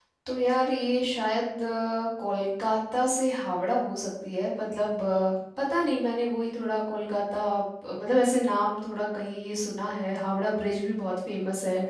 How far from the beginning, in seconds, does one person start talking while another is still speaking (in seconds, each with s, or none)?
none